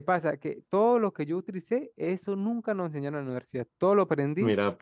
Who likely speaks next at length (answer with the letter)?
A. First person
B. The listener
A